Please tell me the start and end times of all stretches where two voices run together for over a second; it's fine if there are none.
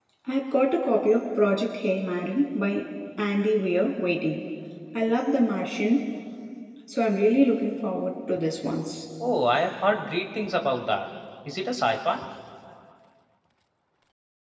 none

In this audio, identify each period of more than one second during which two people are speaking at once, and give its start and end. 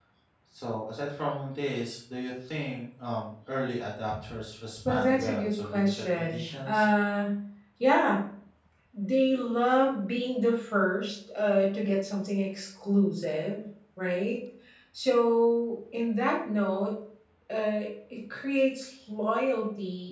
4.8-6.9

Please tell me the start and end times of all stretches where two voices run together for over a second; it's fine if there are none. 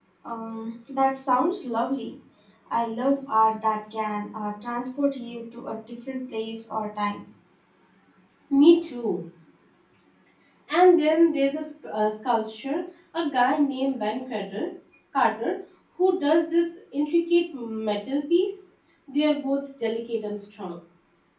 none

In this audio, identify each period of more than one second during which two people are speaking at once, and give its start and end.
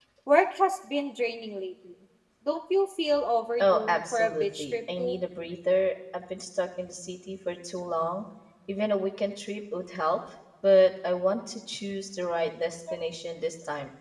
3.6-5.2

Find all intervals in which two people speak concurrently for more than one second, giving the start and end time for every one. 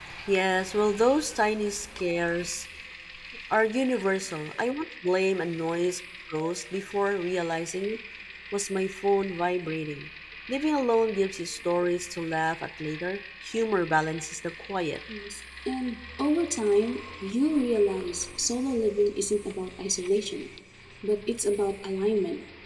none

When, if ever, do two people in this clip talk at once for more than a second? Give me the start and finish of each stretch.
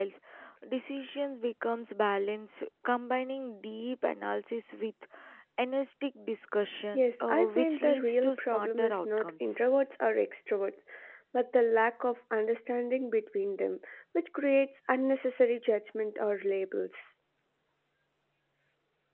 6.9-9.6

